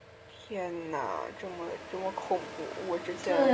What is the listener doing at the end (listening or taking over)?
taking over